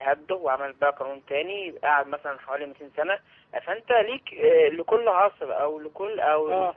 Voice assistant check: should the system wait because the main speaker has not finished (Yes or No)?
Yes